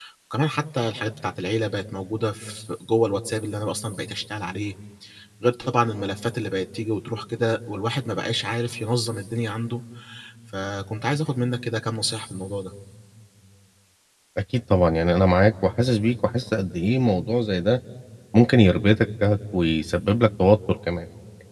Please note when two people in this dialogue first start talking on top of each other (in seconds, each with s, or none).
none